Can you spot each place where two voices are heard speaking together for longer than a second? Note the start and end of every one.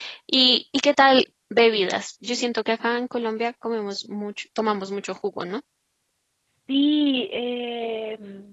none

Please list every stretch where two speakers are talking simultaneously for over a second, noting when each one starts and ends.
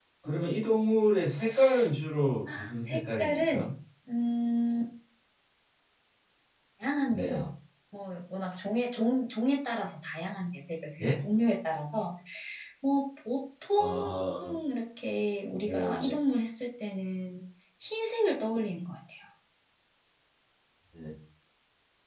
2.5-3.7

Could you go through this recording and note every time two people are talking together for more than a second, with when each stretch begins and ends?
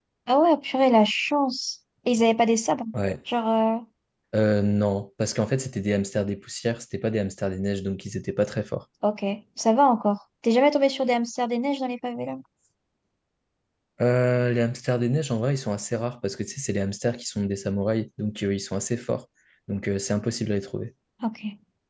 none

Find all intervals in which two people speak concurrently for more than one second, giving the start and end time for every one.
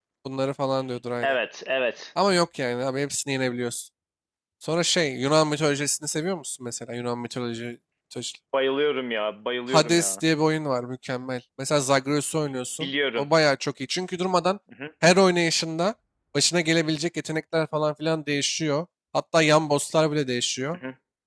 none

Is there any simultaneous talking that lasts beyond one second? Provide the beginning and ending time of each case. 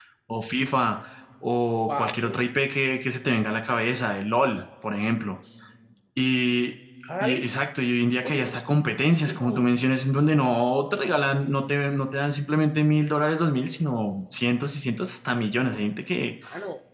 none

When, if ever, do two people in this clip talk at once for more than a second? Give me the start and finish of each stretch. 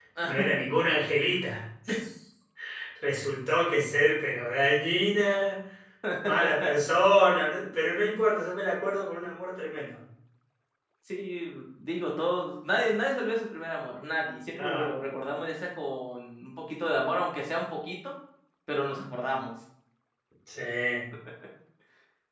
none

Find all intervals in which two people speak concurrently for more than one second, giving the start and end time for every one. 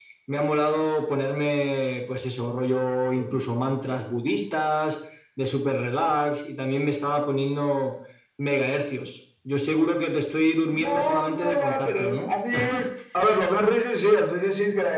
10.8-12.3

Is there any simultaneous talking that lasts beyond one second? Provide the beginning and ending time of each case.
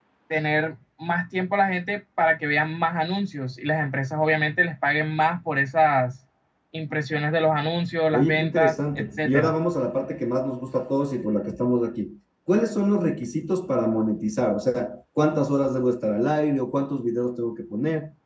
8.1-9.5

